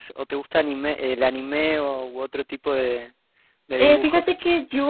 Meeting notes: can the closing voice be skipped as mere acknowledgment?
No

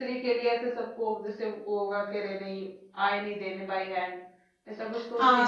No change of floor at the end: No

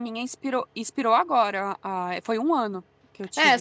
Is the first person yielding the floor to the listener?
Yes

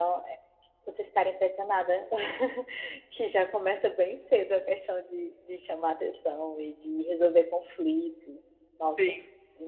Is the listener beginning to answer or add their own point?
Yes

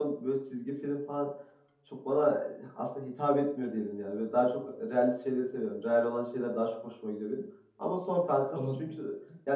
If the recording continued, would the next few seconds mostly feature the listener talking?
No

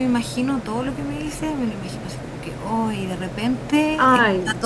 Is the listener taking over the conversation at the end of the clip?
No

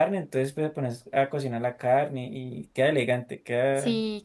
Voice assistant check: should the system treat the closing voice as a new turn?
Yes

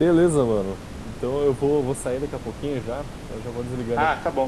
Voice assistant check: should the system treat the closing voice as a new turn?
Yes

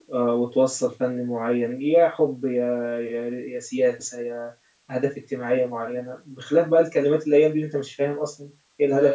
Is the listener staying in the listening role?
No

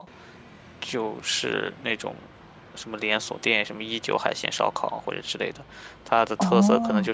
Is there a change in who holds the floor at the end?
Yes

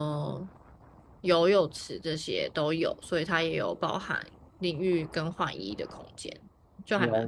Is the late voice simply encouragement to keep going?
No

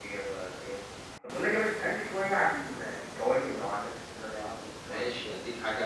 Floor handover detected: Yes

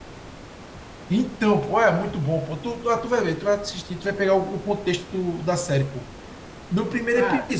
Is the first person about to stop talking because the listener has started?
No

